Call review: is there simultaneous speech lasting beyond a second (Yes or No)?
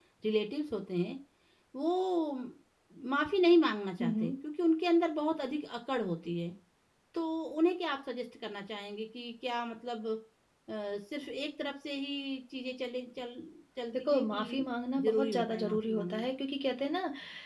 Yes